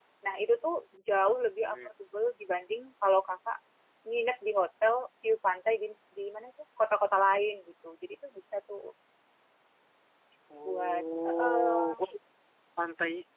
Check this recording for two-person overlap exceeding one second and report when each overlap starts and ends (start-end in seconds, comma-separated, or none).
10.7-12.0